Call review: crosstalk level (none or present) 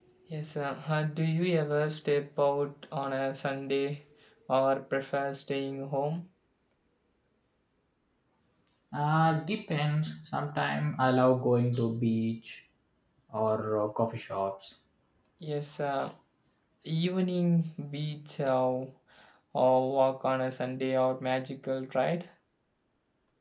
none